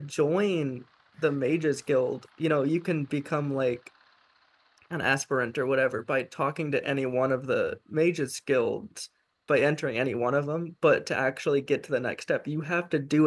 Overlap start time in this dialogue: none

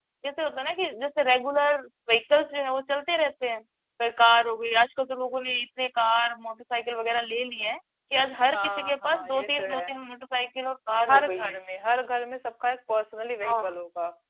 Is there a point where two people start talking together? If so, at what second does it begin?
8.5 s

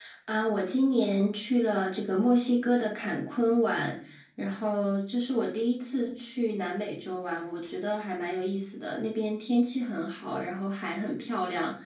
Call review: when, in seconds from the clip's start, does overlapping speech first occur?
none

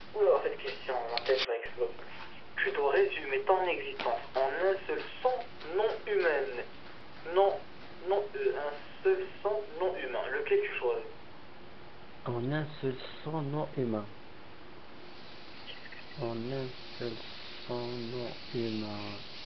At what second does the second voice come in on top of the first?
none

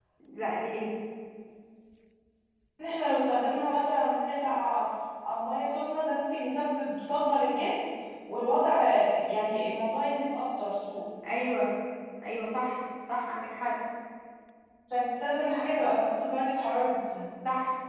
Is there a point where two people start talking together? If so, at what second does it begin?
none

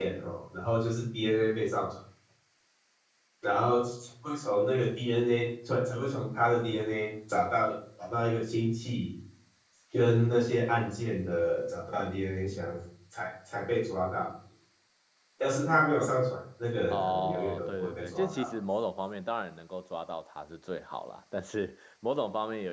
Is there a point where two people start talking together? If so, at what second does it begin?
16.9 s

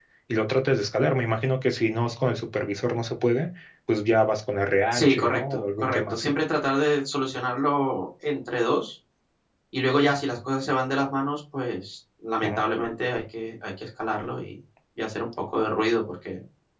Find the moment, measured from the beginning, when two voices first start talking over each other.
4.9 s

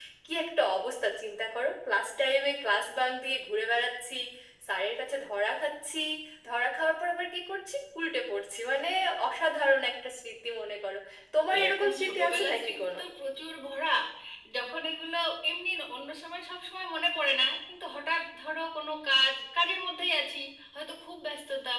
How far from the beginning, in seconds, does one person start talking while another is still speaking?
11.6 s

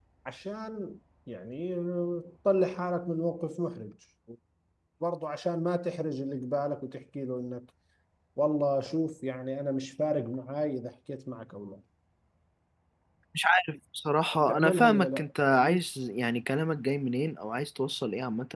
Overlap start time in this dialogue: 14.5 s

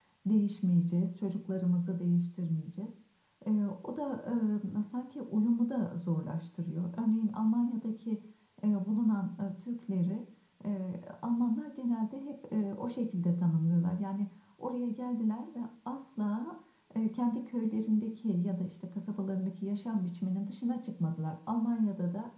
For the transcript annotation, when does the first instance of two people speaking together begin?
none

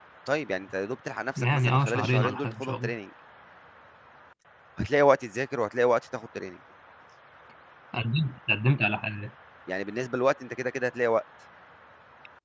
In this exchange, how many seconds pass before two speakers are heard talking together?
1.4 s

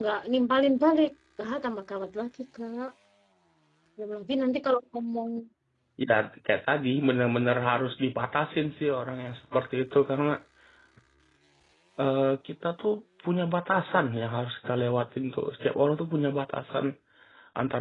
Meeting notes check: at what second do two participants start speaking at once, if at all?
none

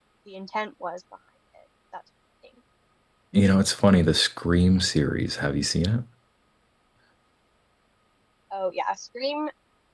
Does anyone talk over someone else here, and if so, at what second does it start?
none

